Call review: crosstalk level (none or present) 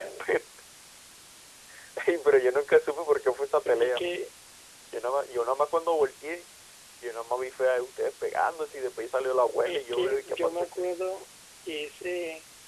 present